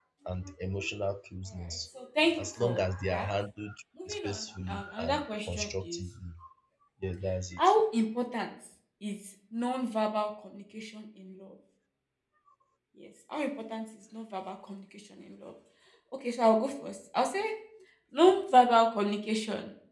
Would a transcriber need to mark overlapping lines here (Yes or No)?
Yes